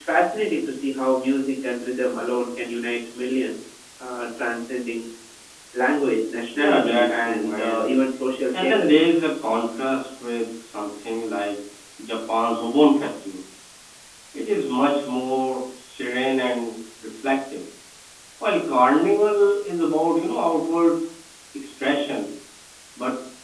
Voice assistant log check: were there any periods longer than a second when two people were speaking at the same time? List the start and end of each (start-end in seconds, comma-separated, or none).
6.5-7.8